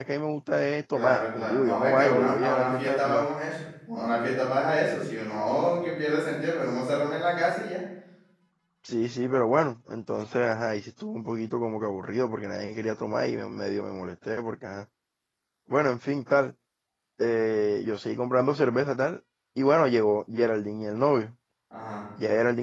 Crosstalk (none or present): present